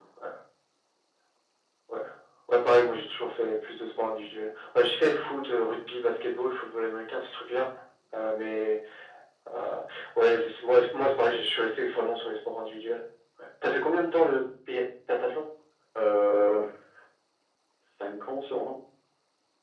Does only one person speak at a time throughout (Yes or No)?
Yes